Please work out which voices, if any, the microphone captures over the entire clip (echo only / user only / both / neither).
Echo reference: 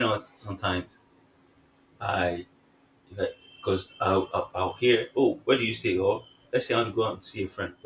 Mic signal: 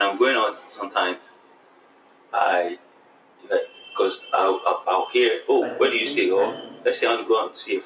both